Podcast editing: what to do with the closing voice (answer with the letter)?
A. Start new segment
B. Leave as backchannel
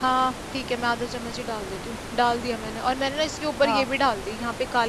B